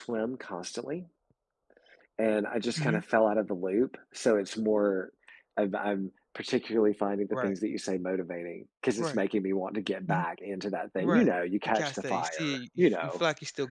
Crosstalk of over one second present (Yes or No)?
Yes